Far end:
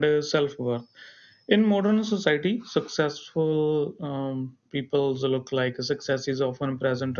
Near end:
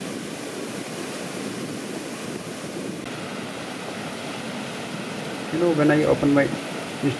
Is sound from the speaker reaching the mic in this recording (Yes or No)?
No